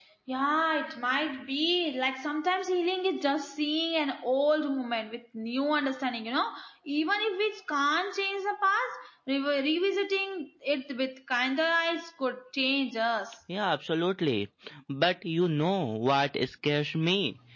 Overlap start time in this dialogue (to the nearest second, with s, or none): none